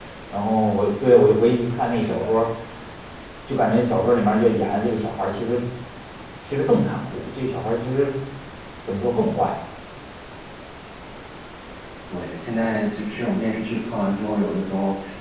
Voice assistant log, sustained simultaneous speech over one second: none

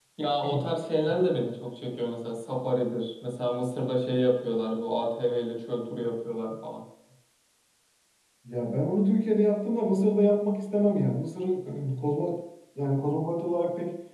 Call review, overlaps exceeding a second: none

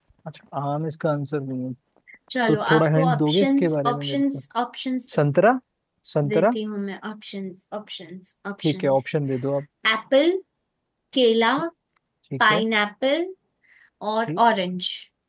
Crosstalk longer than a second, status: present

